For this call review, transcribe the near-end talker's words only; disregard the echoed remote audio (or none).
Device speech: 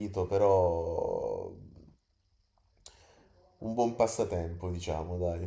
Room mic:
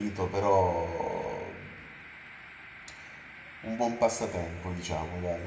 none